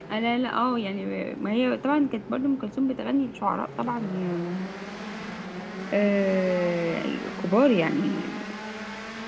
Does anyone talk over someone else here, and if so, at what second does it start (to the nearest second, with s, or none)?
none